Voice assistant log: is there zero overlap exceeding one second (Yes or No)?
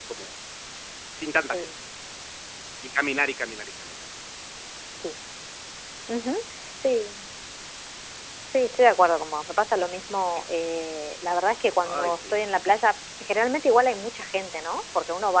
Yes